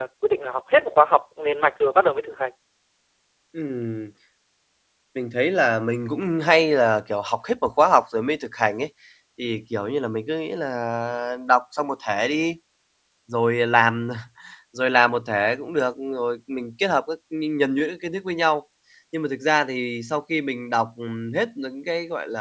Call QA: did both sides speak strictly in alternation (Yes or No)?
Yes